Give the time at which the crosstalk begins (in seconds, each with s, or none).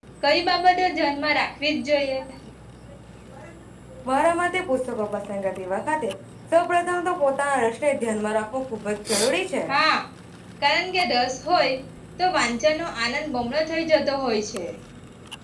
none